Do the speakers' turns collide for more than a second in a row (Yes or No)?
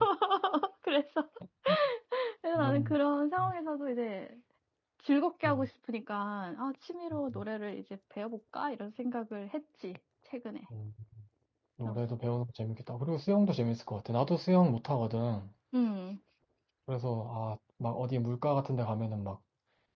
No